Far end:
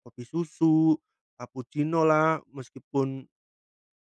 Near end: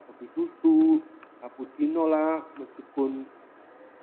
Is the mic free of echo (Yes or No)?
No